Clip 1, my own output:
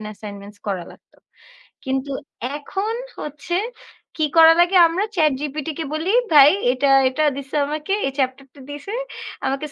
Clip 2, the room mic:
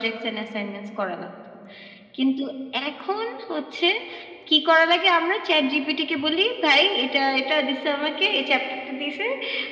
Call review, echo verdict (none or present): present